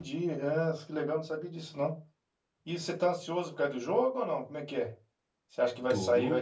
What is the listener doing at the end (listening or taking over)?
listening